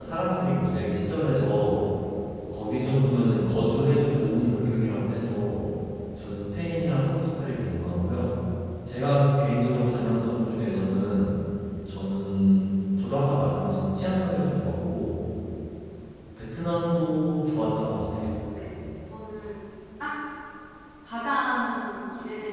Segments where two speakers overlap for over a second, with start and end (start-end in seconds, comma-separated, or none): none